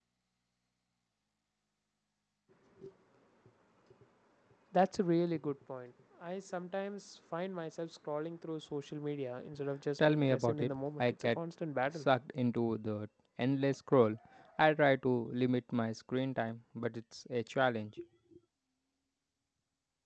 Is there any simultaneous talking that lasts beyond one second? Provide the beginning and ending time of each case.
10.0-11.4

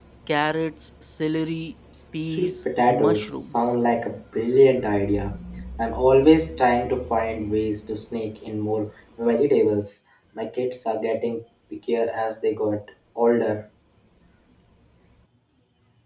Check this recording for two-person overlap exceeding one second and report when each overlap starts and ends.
2.3-3.7

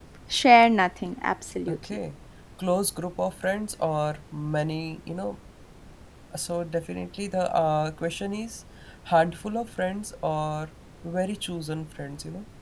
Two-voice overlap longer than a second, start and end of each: none

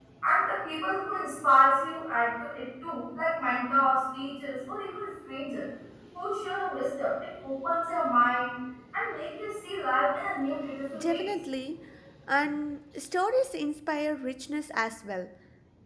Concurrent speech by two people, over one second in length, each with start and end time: none

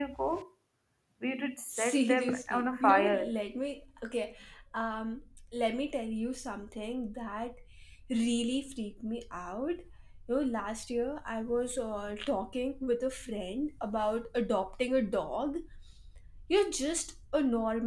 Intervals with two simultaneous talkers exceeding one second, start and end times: 1.7-3.3

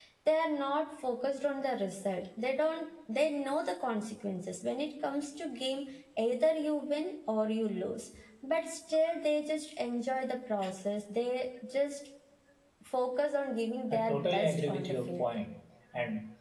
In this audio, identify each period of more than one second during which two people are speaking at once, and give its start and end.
13.9-15.2

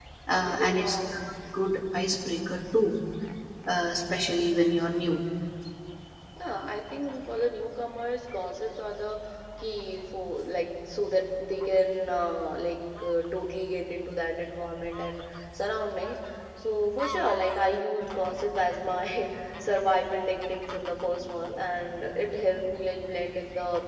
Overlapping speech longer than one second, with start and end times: none

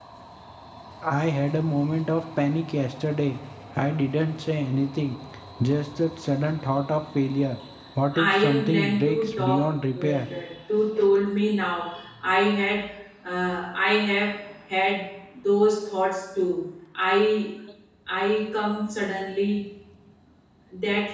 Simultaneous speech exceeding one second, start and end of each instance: 8.3-9.7

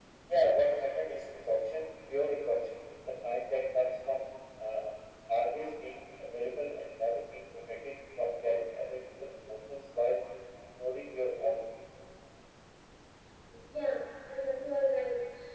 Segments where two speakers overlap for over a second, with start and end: none

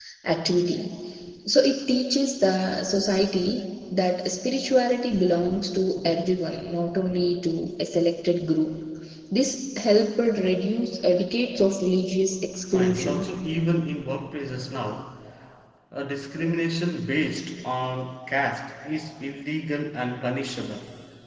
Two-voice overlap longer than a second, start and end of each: none

